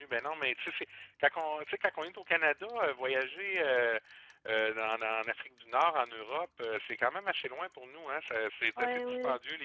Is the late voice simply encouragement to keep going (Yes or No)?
No